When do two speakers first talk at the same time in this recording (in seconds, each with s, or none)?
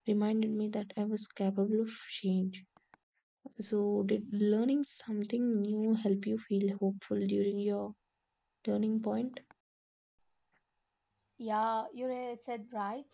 none